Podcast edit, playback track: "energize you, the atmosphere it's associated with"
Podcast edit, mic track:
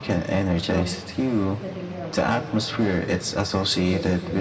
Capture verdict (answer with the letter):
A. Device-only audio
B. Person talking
B